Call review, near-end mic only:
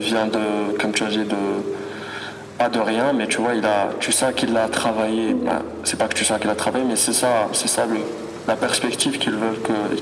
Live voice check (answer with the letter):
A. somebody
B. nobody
A